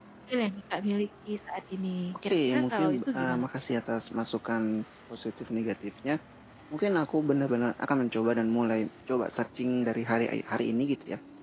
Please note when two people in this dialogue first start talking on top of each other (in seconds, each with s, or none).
2.1 s